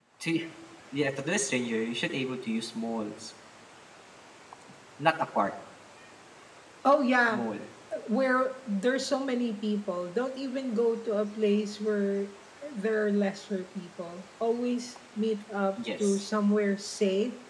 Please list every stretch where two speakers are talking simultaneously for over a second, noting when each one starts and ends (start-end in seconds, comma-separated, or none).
none